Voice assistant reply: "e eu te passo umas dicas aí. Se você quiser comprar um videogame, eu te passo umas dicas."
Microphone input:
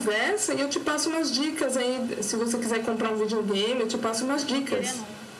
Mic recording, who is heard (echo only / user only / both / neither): both